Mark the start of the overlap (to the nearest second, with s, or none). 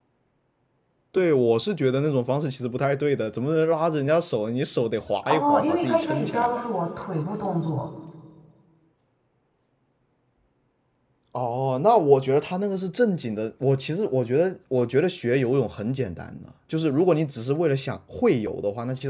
5 s